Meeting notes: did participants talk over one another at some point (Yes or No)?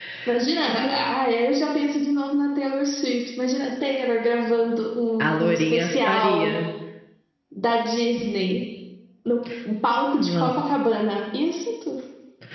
Yes